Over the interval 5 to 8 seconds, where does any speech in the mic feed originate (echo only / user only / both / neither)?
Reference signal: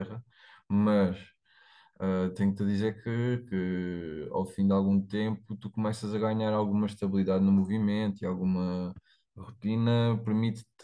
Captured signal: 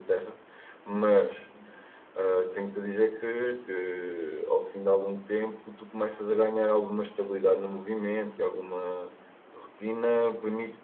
echo only